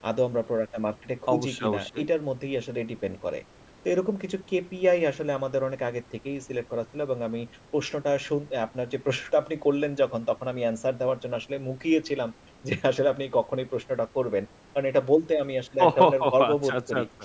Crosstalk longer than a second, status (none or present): present